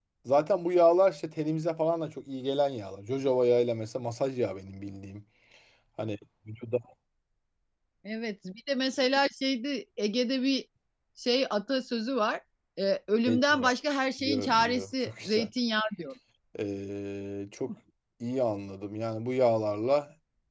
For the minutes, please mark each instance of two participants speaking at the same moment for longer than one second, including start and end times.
14.2-15.5

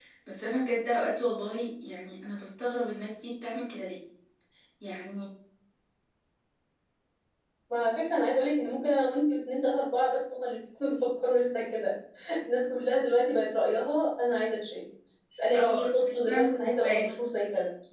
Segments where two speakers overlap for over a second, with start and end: 15.5-17.1

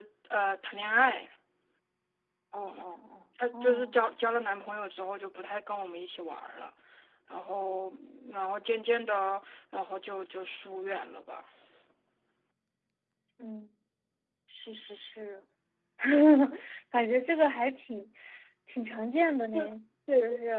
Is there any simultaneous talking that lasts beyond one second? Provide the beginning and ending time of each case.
none

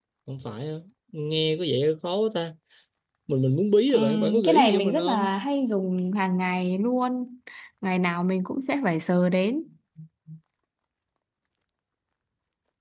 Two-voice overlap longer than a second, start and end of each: 3.9-5.3

